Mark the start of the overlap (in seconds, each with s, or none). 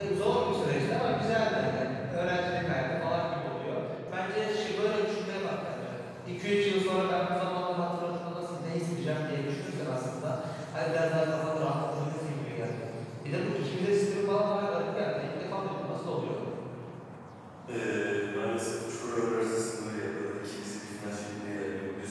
none